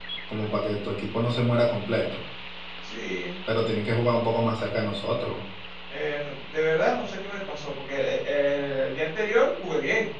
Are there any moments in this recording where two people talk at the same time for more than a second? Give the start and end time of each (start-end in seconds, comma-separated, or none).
none